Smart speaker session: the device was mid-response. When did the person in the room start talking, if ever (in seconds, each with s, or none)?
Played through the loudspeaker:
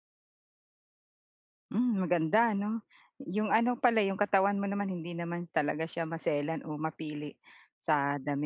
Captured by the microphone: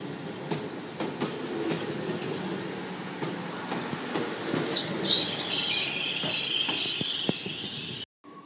none